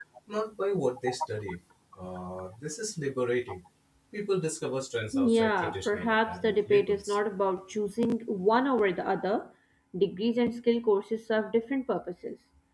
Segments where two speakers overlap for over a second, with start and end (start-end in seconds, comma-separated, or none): 5.1-7.2